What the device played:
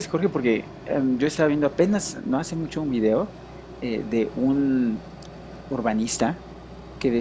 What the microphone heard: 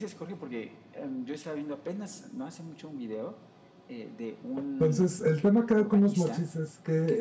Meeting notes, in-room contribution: present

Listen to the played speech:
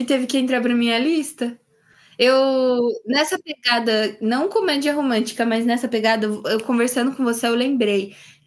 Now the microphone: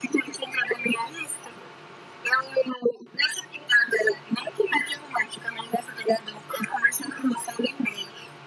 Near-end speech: none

